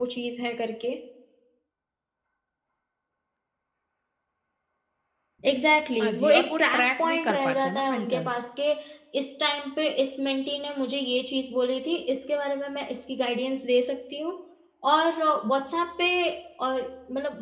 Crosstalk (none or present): present